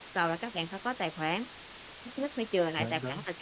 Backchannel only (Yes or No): Yes